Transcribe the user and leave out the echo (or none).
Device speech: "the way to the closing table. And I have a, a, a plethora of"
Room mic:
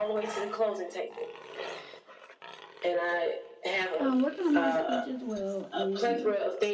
um, working on my speech as well and